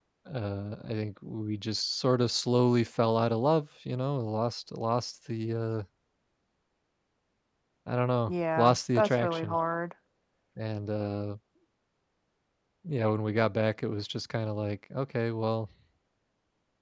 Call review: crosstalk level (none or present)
present